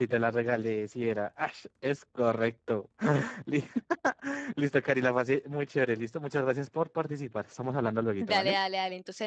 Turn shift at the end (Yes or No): Yes